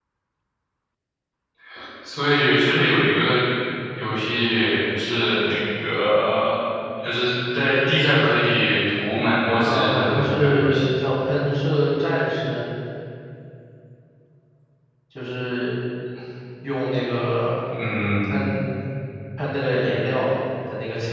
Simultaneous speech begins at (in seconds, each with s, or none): 9.6 s